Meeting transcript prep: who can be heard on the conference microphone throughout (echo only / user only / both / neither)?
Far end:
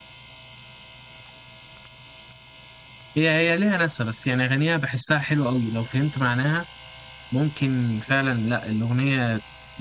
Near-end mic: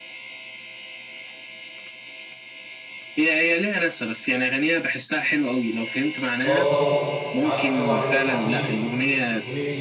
both